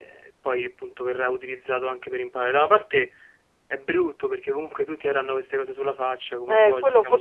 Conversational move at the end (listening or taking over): taking over